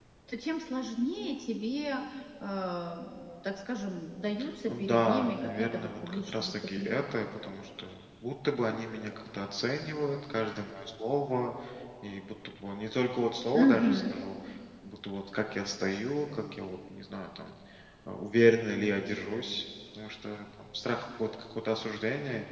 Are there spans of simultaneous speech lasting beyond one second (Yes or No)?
Yes